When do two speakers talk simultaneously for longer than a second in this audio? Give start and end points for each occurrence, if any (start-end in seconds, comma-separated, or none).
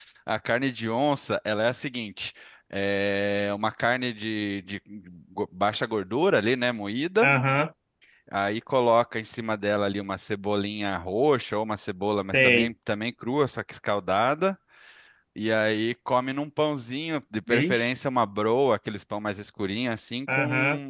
none